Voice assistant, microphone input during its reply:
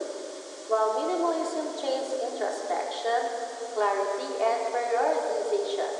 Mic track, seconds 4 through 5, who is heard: echo only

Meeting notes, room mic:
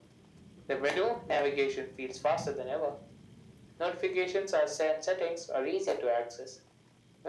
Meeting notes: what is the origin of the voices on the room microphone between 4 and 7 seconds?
echo only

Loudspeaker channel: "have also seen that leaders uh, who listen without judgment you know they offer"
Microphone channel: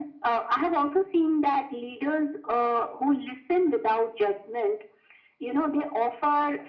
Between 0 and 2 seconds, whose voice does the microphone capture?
echo only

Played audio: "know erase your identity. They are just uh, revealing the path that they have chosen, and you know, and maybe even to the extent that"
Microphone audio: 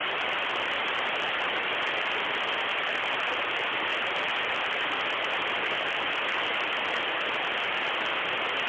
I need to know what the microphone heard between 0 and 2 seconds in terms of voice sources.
neither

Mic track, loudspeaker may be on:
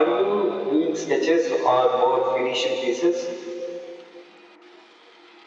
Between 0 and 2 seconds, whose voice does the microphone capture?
echo only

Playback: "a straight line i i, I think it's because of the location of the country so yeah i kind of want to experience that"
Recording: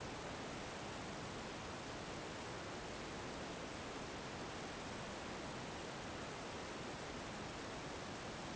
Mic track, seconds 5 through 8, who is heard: neither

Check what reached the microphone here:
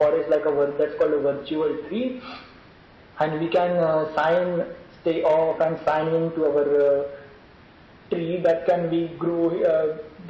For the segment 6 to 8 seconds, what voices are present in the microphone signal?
echo only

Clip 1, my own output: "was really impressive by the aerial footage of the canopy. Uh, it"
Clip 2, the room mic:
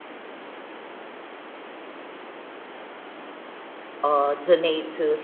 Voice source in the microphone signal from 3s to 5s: user only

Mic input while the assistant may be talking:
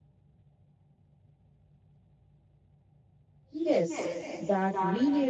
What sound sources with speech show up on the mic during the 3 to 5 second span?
user only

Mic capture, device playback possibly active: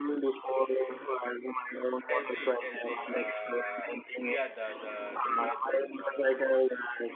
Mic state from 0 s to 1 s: echo only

